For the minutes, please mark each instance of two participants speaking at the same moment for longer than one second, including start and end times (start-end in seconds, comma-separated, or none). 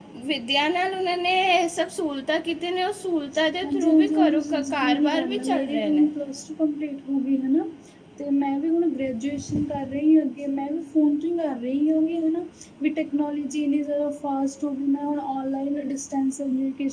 3.6-6.0